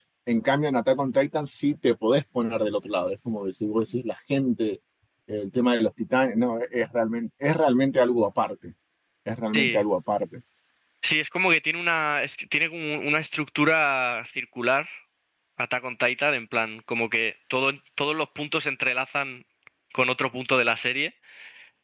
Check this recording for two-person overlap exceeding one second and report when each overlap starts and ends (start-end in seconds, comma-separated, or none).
none